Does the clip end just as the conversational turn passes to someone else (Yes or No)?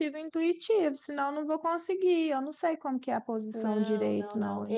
Yes